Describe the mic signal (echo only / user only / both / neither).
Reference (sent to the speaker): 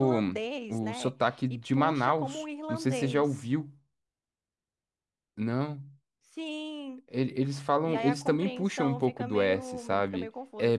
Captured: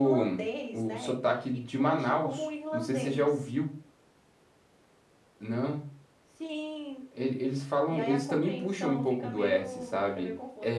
echo only